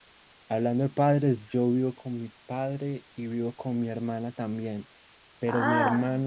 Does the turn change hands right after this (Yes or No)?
No